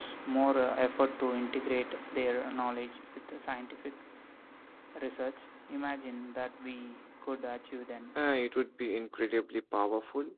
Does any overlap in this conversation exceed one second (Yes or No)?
No